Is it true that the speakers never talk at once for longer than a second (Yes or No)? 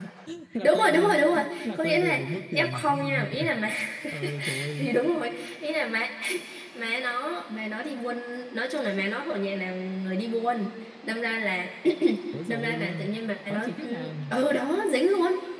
No